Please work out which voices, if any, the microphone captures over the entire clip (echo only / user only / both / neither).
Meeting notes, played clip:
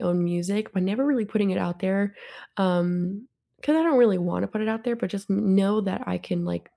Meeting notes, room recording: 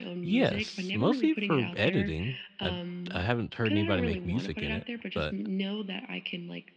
both